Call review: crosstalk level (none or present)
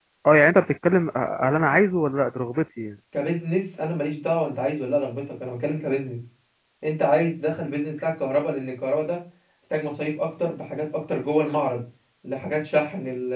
none